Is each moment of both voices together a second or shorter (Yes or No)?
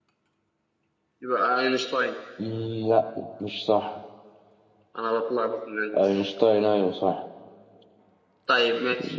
Yes